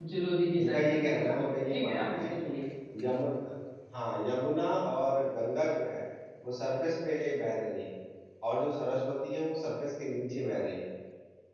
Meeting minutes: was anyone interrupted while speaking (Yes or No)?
Yes